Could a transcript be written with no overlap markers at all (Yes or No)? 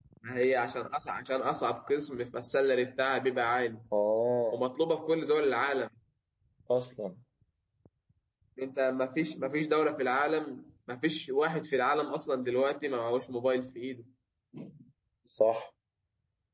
Yes